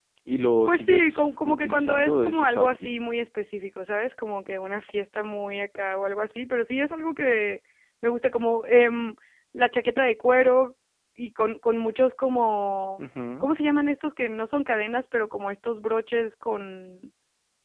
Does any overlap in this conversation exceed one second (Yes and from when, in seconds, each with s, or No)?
Yes, from 0.7 s